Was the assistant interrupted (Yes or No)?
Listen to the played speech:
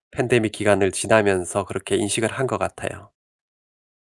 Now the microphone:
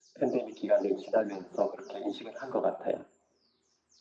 No